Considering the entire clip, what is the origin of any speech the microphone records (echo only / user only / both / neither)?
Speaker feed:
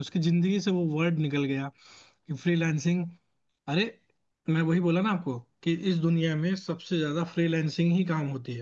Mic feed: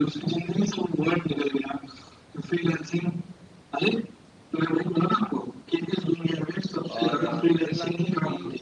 both